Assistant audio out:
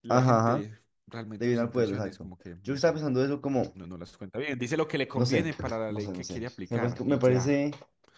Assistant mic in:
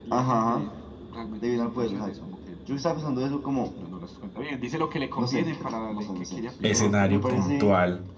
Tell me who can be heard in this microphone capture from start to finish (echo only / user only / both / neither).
both